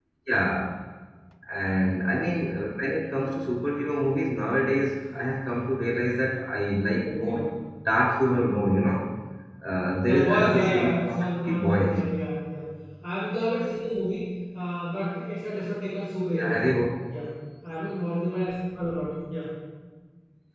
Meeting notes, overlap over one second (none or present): present